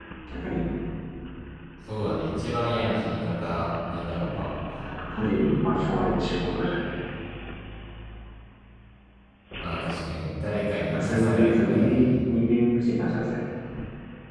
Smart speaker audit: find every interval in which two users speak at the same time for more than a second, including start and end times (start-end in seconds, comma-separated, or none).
10.9-12.1